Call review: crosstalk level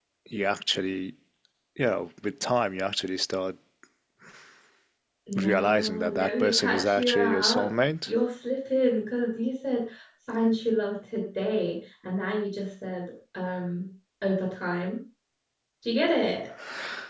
present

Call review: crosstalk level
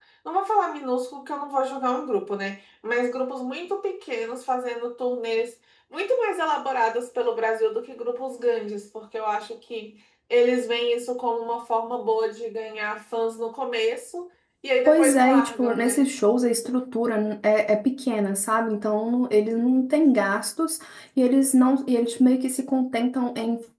present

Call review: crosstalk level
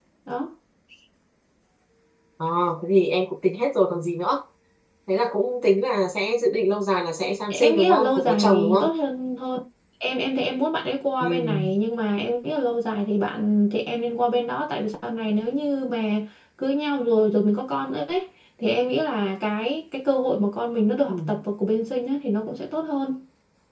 present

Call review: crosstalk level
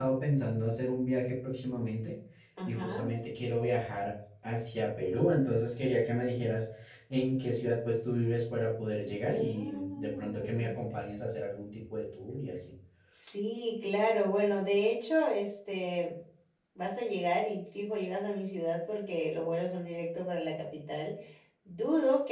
present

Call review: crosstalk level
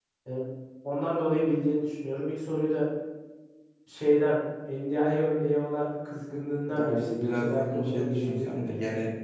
present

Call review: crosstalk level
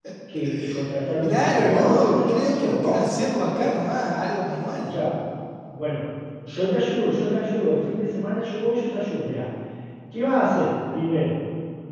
present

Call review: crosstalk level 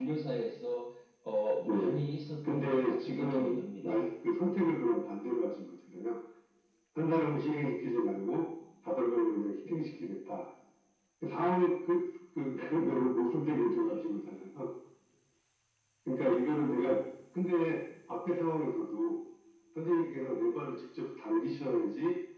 present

